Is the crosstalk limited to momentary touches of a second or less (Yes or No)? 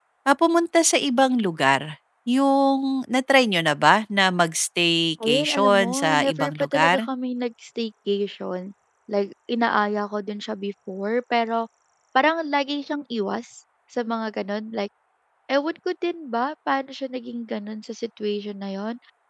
No